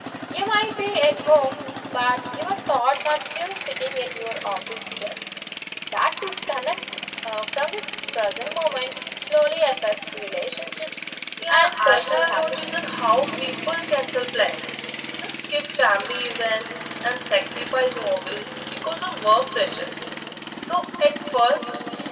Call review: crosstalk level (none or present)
present